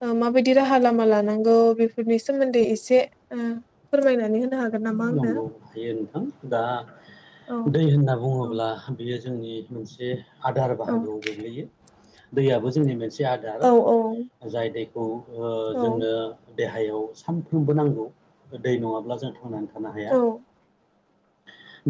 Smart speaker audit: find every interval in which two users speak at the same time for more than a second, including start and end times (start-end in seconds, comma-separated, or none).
none